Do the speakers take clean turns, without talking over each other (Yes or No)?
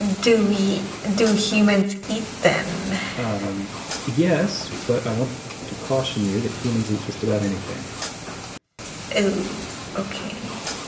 Yes